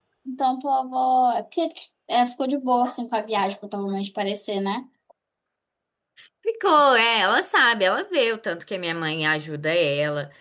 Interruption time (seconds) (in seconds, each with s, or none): none